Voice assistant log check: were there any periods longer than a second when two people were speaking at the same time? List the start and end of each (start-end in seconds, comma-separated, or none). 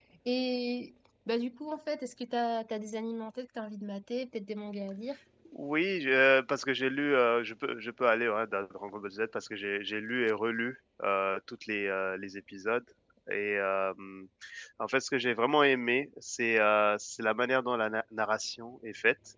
none